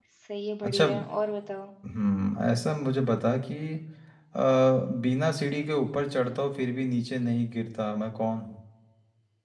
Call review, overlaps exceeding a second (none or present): none